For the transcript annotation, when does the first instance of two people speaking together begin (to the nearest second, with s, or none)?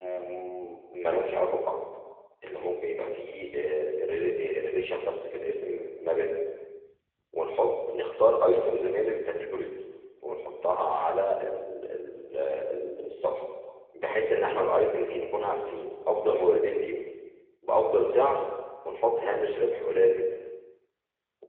none